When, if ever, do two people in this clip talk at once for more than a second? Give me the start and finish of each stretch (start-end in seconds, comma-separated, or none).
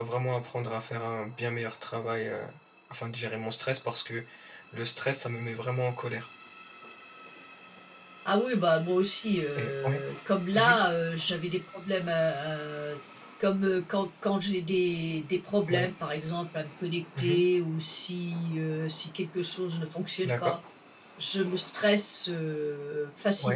none